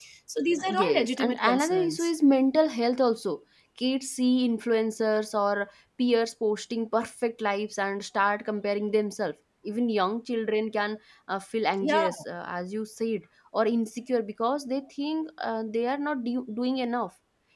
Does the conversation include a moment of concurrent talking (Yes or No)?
Yes